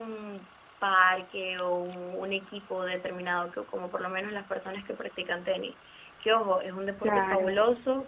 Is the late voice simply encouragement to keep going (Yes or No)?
Yes